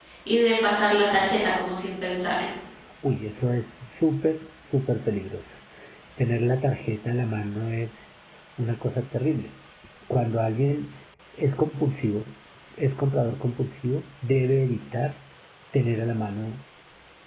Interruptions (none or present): none